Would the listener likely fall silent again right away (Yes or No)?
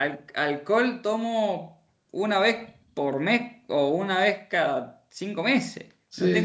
Yes